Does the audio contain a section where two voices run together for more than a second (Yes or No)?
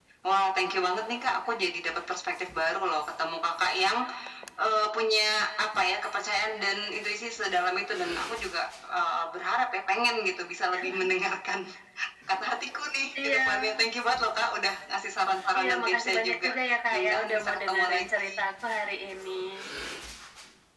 Yes